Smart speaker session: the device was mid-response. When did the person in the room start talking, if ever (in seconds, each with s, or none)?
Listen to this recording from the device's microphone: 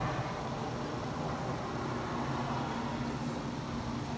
none